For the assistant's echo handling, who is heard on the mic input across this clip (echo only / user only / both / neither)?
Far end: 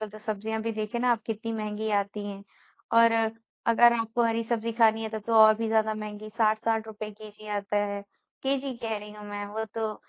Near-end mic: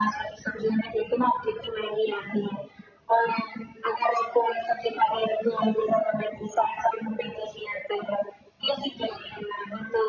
echo only